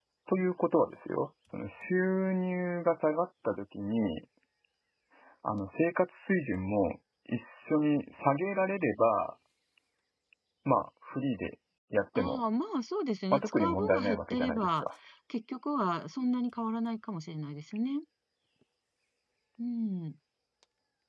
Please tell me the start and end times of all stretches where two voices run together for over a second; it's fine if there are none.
13.3-14.8

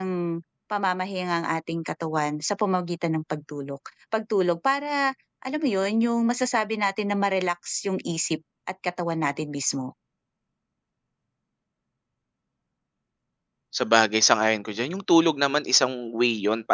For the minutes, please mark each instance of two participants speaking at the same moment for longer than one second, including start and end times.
none

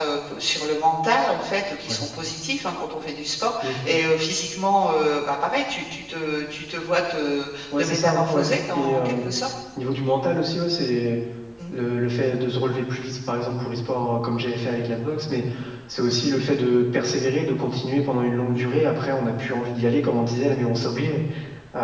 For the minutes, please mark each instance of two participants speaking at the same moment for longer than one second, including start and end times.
7.8-9.2

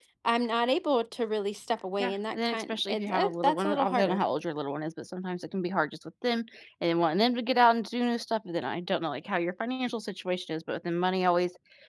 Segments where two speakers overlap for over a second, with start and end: 2.0-4.2

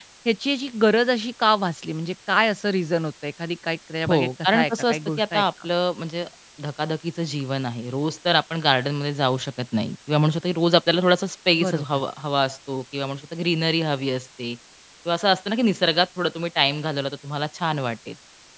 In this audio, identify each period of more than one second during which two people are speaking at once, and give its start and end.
4.1-5.4

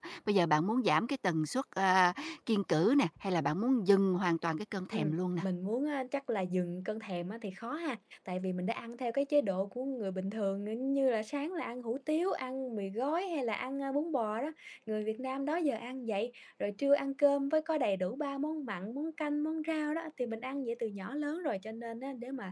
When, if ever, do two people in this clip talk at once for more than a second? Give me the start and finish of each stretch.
none

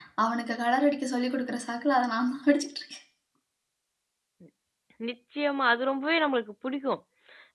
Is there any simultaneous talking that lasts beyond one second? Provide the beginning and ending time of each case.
none

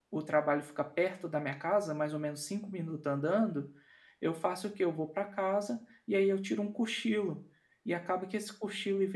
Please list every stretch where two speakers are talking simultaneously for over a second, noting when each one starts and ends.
none

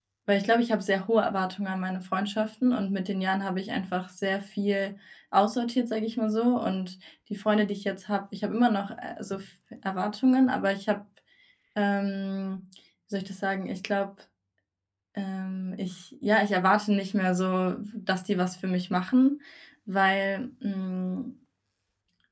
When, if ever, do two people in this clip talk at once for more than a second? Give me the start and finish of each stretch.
none

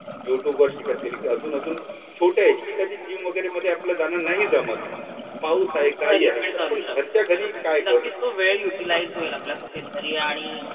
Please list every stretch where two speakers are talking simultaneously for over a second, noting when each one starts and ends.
6.0-8.1

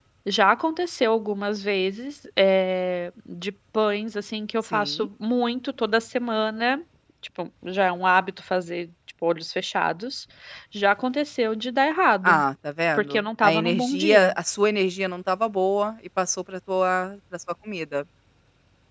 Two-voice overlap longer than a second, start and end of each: 12.9-14.3

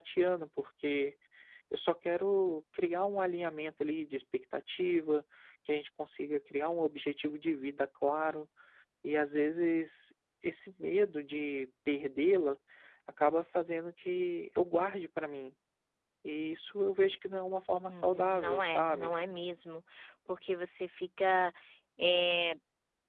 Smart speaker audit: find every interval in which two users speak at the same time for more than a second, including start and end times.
17.9-19.1

